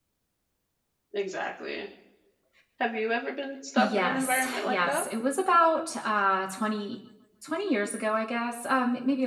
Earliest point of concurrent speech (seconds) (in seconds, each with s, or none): 3.8 s